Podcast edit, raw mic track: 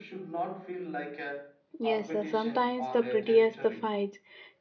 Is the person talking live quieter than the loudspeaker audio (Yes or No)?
No